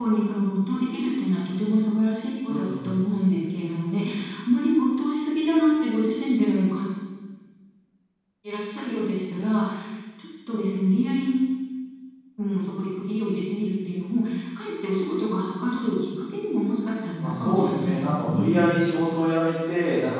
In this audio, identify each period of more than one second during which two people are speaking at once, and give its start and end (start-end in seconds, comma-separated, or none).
17.2-18.7